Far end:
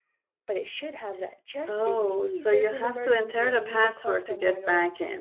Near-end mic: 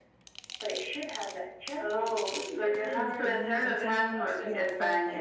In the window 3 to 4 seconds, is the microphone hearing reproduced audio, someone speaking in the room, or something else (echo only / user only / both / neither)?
both